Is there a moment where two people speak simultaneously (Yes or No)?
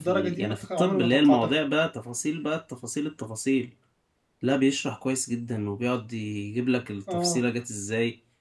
Yes